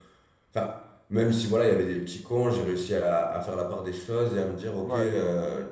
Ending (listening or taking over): listening